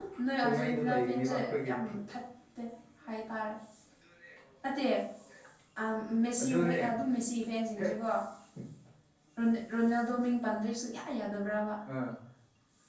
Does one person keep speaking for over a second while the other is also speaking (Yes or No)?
Yes